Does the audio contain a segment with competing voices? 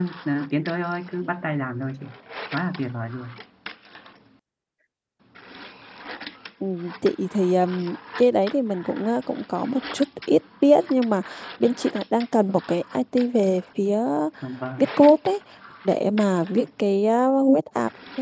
No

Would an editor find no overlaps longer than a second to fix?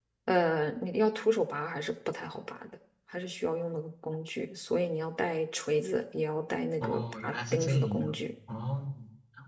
No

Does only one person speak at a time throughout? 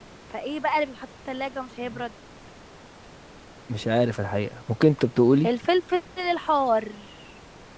Yes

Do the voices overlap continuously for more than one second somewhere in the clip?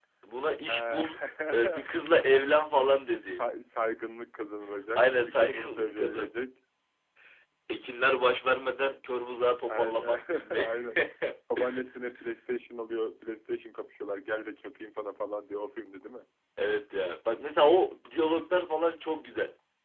Yes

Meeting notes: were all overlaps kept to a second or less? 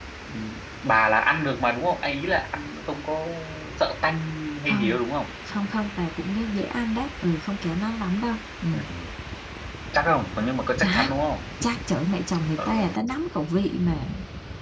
Yes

